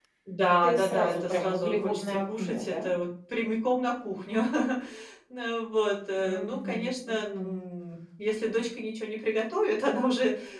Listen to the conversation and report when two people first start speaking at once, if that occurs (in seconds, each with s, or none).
0.6 s